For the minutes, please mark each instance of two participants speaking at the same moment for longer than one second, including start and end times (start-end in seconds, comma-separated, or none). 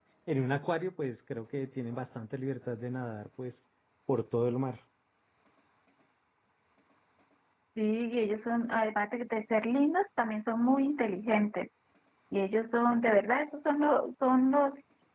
none